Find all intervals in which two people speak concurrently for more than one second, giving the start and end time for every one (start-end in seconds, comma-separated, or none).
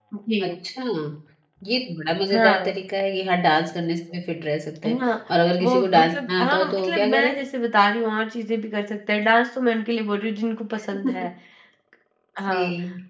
5.6-7.3